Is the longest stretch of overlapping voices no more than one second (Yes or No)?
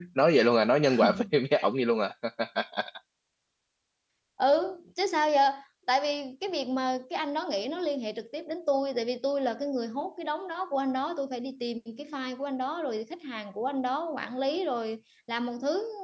Yes